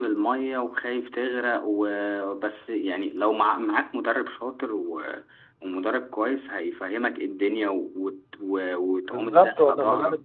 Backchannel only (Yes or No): No